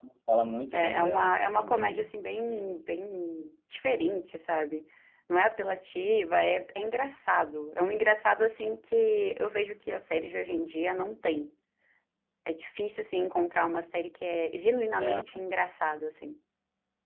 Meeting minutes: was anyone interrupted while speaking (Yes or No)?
Yes